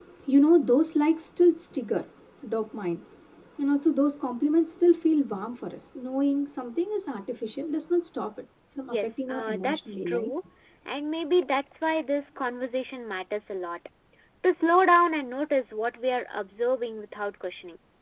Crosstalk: present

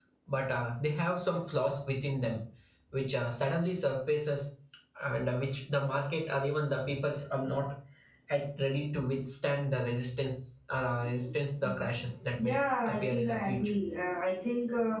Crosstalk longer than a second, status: present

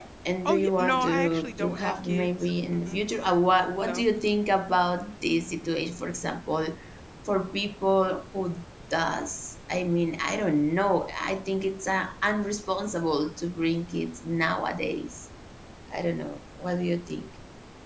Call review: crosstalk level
present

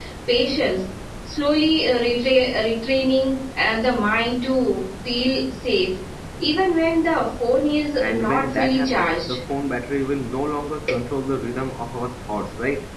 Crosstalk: present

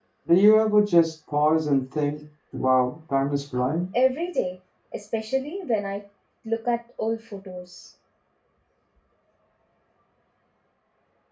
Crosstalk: none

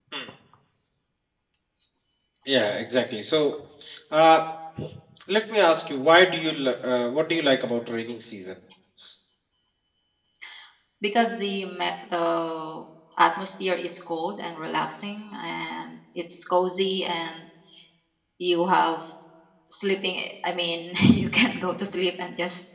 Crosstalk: none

